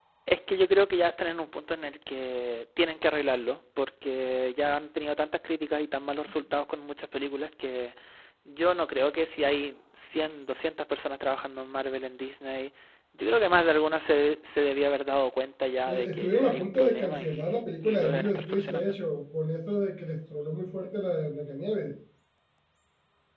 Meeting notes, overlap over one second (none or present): present